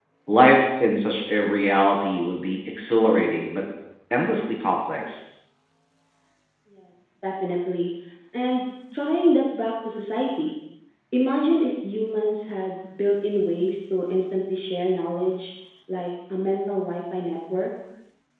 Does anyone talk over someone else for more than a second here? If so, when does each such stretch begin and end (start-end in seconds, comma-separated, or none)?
none